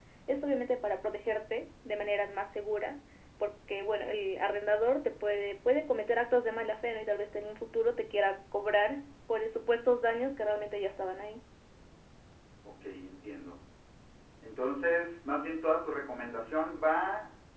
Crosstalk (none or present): none